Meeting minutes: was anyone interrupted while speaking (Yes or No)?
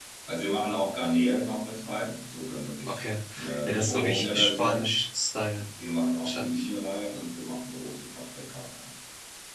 Yes